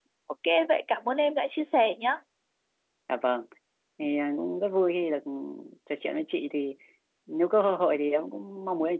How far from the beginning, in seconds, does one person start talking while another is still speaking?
none

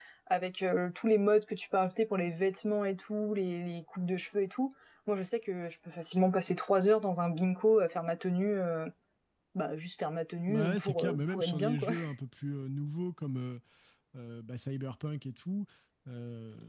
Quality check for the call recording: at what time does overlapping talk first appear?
10.5 s

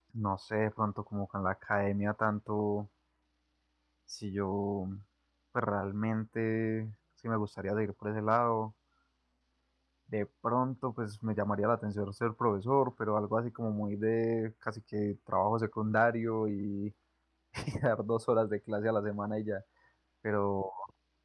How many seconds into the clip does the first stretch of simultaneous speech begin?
none

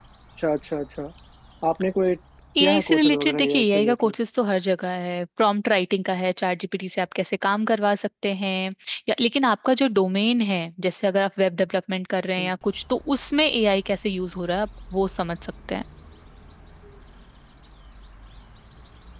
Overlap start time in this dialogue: 2.5 s

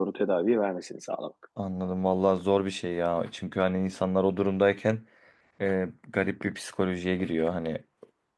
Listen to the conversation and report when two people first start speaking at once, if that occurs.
none

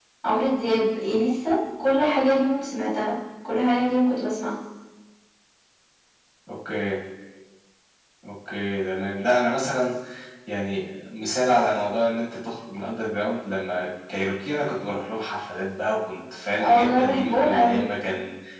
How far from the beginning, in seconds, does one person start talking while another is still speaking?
16.6 s

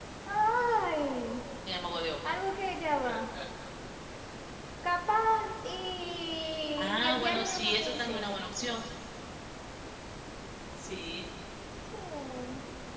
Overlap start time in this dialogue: 6.8 s

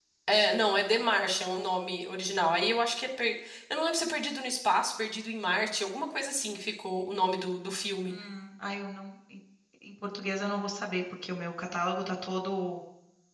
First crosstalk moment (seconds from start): none

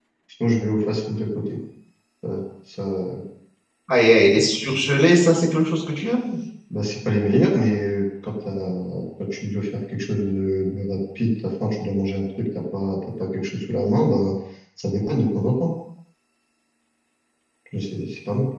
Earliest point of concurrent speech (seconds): none

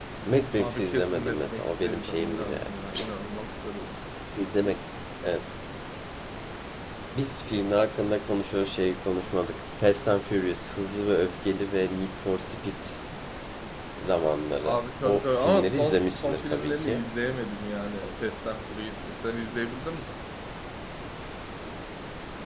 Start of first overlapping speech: 0.6 s

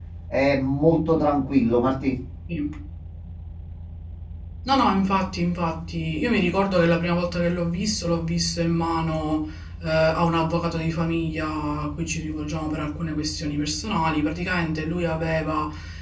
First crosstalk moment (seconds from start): none

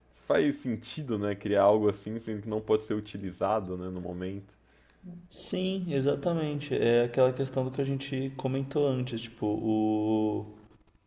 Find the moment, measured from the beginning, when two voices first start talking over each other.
none

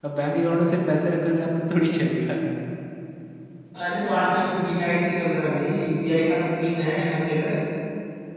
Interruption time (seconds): none

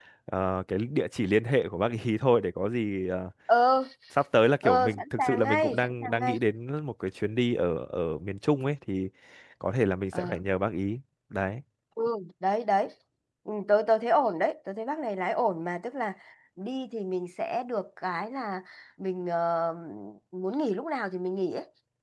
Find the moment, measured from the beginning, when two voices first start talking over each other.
4.6 s

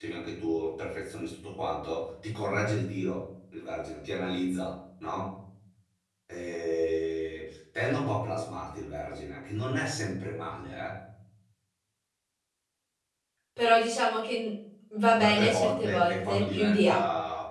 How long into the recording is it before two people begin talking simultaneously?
15.1 s

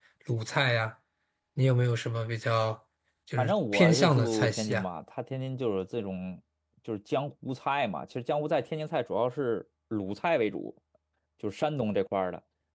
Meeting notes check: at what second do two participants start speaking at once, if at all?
3.4 s

